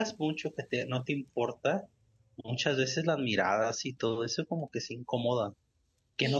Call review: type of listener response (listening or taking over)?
listening